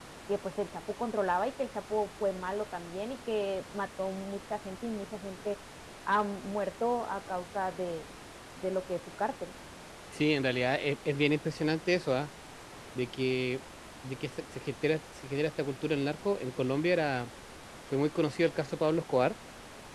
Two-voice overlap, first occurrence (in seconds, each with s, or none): none